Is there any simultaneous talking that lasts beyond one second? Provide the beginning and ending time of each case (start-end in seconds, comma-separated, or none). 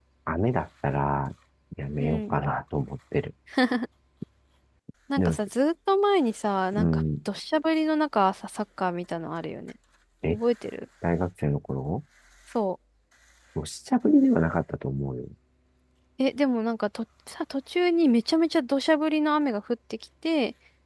none